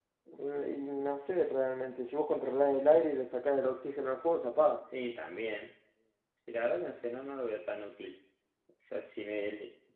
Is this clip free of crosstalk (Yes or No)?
Yes